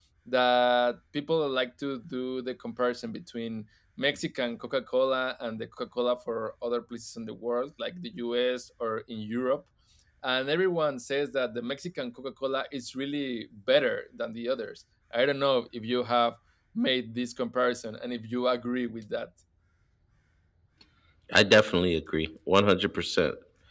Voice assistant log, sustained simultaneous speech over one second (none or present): none